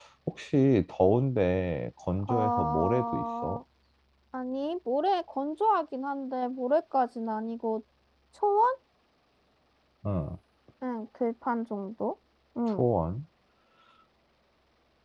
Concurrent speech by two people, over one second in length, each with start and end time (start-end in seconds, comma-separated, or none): 2.3-3.6